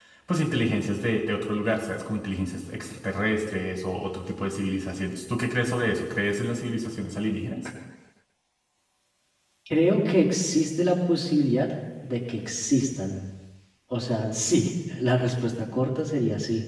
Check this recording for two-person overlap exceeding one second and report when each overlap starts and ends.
none

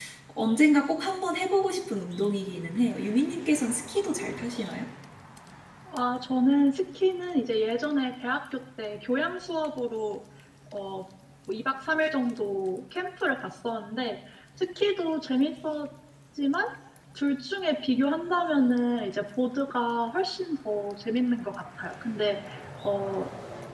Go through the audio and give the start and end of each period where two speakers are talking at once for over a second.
none

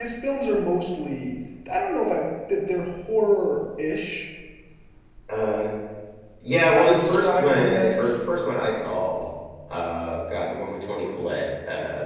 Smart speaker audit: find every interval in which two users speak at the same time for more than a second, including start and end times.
6.7-8.2

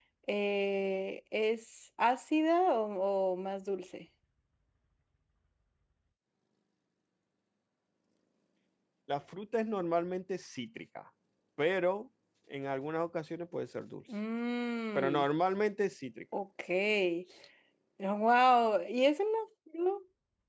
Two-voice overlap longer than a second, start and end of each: none

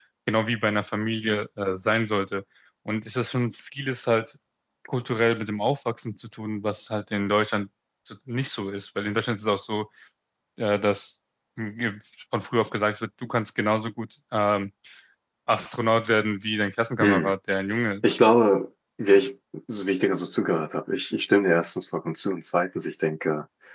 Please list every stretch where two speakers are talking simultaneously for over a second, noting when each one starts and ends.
none

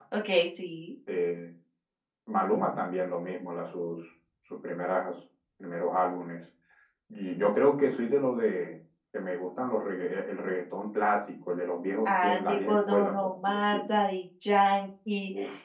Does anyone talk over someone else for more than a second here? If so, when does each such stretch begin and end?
12.1-13.8

